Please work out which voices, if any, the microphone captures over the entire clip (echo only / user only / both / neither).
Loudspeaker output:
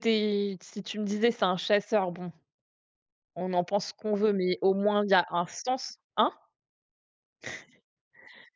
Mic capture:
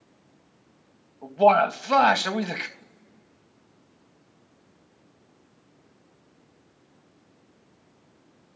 user only